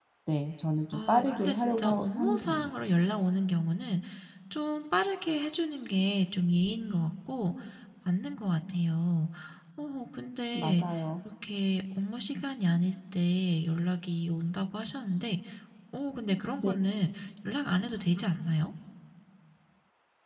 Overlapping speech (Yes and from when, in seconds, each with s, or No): Yes, from 0.9 s